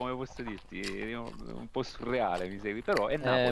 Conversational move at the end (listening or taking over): taking over